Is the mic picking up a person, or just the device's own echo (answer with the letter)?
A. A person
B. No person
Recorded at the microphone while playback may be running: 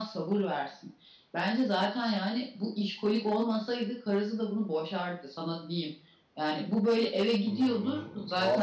A